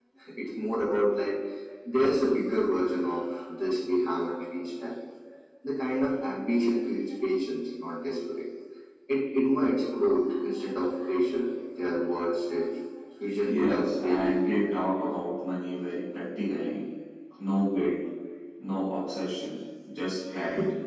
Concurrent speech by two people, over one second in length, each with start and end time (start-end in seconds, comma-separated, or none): 13.4-14.7